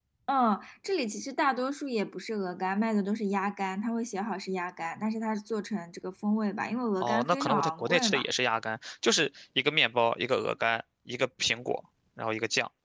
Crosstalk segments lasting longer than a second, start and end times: 7.0-8.2

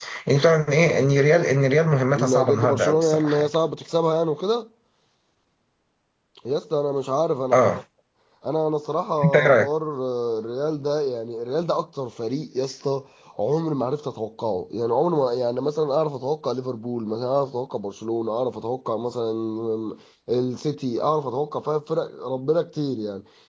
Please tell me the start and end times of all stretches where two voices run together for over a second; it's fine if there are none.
2.2-3.5

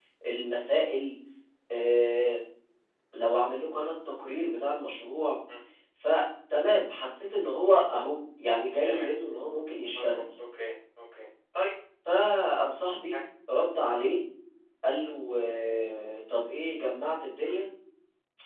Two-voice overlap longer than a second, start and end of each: none

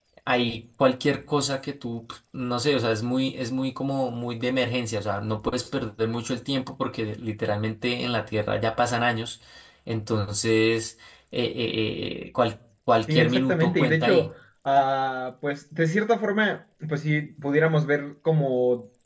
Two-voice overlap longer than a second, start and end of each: 13.1-14.3

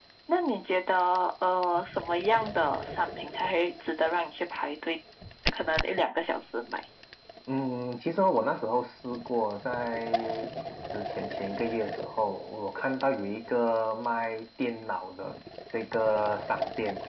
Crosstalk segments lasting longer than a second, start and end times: none

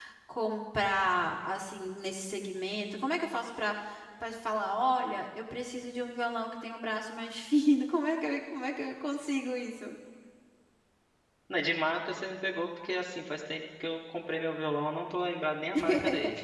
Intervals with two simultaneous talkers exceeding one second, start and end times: none

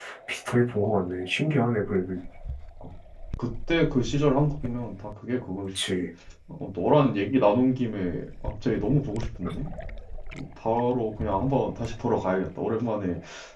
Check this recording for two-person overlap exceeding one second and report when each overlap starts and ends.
none

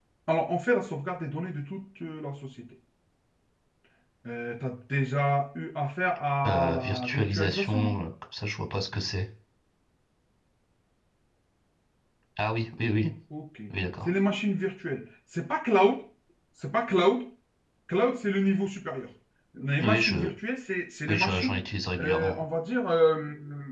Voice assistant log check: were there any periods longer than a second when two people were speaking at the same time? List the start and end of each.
6.5-7.9

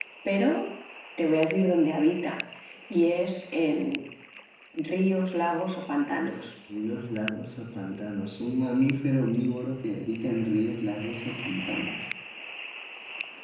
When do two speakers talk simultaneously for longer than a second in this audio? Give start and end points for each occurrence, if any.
none

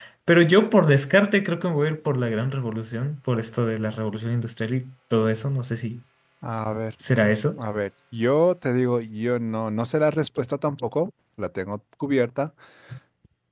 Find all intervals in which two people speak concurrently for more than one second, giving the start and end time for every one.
none

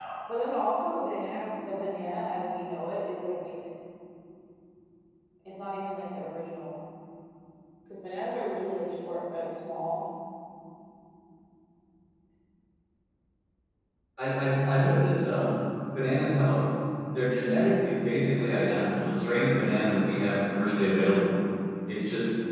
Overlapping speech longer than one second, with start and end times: none

